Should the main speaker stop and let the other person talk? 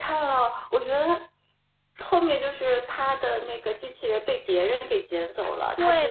Yes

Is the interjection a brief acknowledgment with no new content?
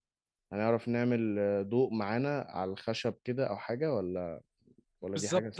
No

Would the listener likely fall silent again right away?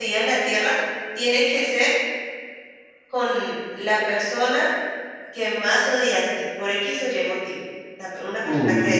Yes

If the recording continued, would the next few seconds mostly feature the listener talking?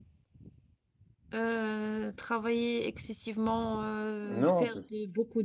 No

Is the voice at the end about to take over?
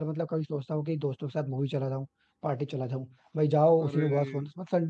No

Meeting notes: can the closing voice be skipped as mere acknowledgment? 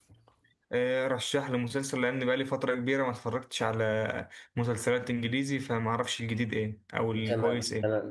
No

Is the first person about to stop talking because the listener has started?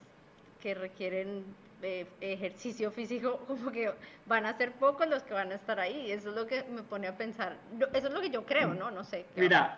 Yes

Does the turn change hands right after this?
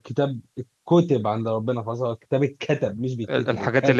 Yes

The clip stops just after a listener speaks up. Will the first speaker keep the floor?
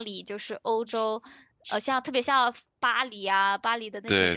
Yes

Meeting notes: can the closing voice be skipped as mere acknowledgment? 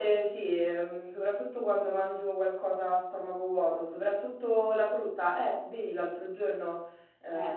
Yes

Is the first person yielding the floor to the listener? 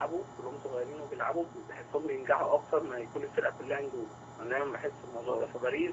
No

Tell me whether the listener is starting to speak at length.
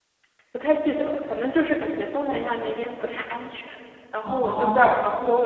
No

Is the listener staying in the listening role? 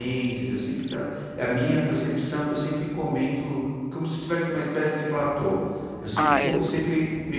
Yes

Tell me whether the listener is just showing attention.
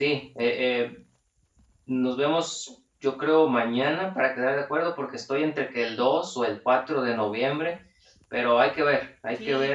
No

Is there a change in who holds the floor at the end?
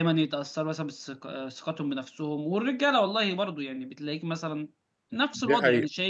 No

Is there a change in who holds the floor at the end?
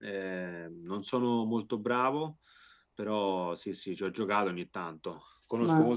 No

